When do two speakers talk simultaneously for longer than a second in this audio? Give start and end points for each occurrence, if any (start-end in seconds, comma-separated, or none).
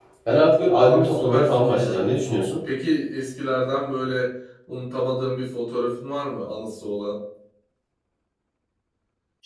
0.8-2.1